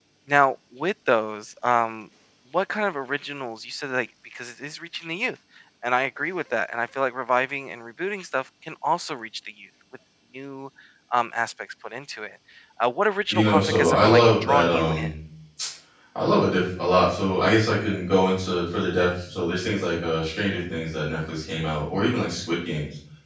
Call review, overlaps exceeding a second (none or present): present